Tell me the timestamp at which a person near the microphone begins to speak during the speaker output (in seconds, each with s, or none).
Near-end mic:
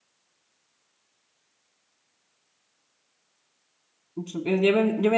4.1 s